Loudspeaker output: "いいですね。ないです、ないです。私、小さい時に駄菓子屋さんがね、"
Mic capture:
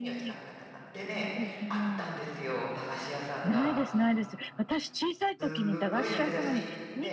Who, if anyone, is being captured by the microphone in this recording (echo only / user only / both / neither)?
both